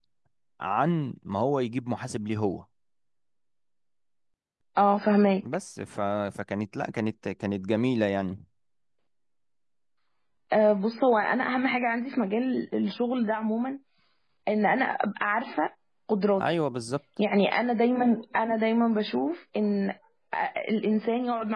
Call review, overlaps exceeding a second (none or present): none